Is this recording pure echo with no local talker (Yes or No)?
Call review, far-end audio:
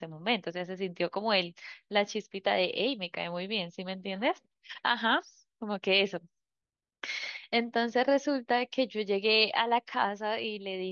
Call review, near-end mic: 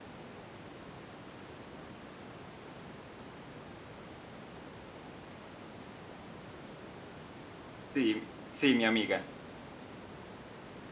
No